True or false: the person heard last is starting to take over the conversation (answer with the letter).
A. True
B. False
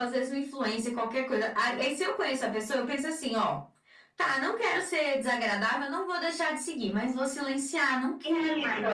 A